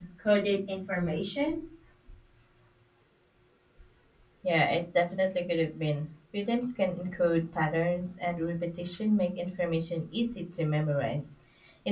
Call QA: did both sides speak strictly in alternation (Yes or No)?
Yes